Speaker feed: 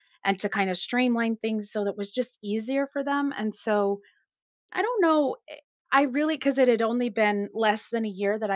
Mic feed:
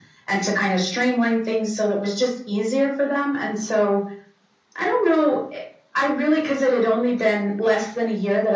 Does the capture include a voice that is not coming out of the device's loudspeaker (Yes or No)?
No